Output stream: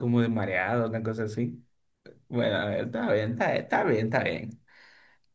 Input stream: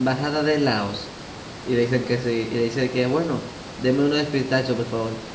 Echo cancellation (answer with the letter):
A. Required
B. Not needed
B